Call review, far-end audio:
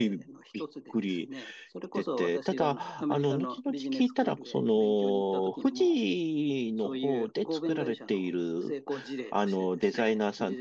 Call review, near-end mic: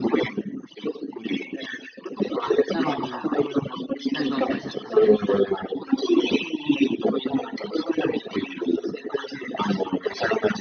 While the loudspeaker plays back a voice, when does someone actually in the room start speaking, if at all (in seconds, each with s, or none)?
2.4 s